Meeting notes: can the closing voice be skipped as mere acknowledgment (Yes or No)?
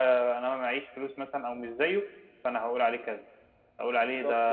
Yes